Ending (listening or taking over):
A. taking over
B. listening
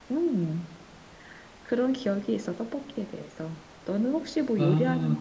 A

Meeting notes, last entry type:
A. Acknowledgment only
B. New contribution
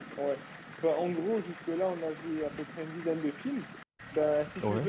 A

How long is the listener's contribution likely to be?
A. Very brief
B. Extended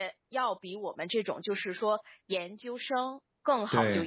A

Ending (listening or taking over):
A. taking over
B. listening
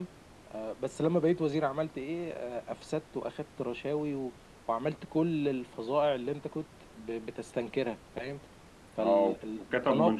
A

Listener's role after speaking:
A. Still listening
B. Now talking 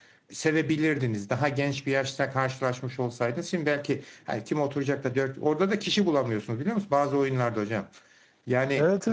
B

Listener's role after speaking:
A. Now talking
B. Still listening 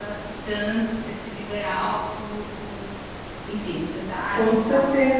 A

